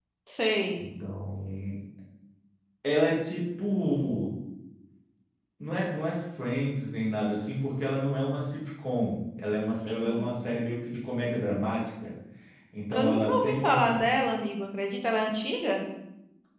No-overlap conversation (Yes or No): No